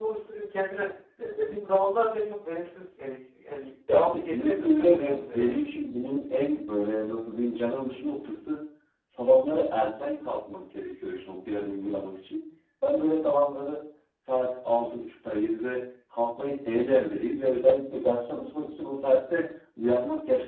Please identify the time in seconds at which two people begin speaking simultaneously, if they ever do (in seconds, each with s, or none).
3.9 s